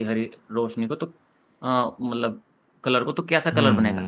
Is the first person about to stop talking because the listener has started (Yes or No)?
Yes